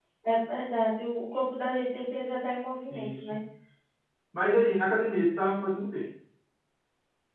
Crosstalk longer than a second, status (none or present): none